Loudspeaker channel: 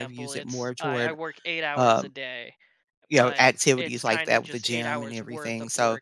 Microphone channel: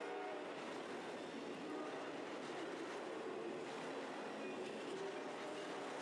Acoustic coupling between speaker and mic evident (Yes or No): No